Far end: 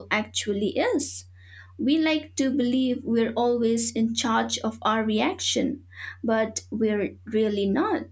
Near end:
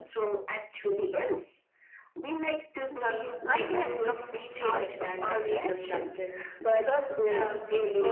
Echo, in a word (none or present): present